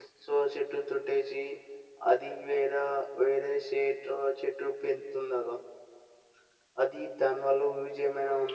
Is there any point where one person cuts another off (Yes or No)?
No